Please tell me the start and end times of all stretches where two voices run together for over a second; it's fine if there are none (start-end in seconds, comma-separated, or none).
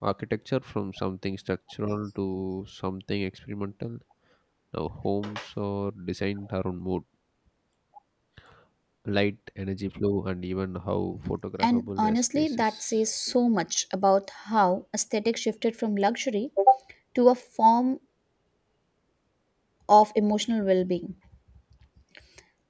11.6-13.0